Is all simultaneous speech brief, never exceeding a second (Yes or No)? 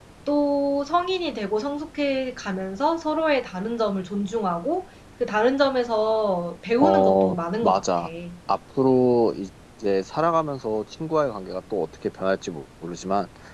No